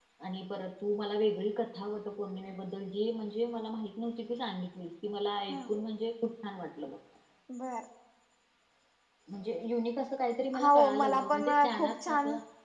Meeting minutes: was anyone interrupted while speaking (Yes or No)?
Yes